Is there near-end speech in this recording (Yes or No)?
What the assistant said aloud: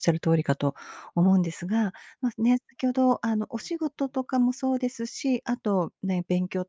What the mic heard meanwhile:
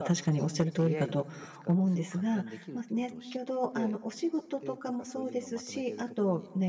Yes